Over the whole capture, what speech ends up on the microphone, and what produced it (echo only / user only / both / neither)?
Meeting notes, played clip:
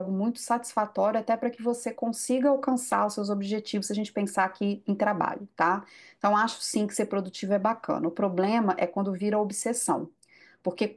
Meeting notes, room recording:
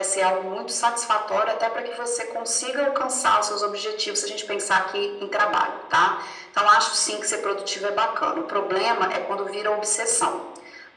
echo only